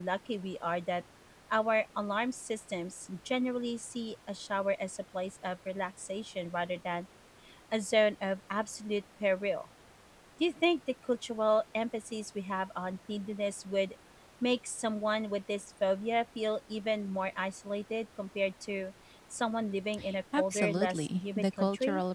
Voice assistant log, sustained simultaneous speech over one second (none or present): present